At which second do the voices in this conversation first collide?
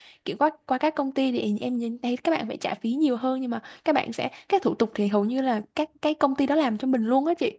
none

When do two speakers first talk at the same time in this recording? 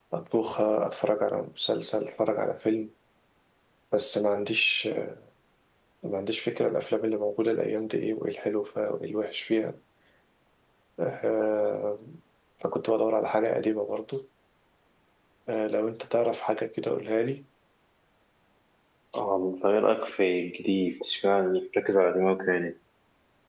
none

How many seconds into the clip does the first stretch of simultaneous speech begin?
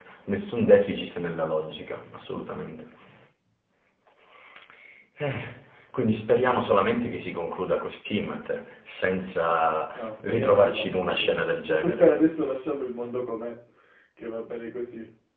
9.9 s

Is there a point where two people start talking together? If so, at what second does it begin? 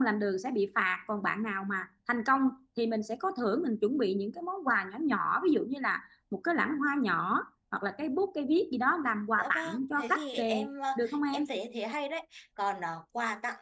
9.4 s

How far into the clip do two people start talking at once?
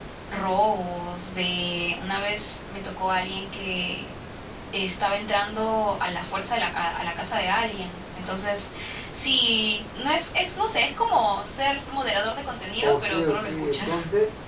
12.8 s

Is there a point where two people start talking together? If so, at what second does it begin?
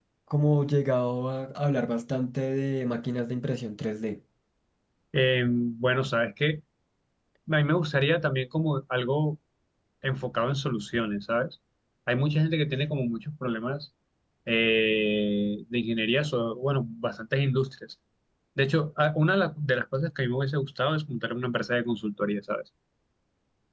none

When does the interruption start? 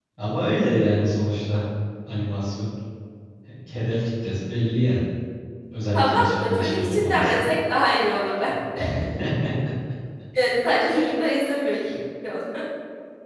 5.9 s

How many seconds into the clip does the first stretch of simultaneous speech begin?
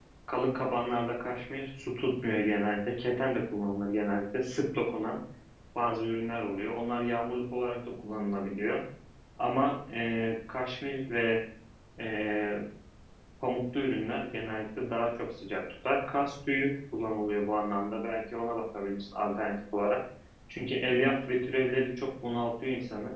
none

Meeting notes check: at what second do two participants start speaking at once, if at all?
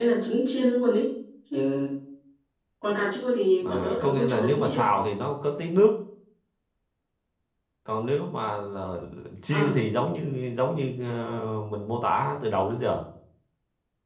3.6 s

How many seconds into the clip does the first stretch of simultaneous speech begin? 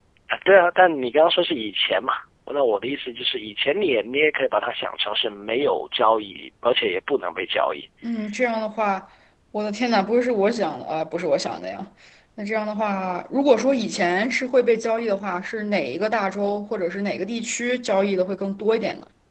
none

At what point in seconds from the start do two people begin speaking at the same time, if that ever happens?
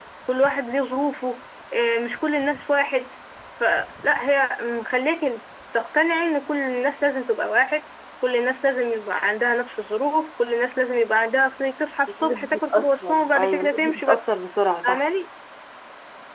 12.2 s

